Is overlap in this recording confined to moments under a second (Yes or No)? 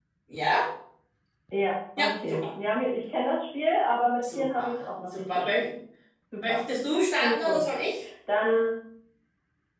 No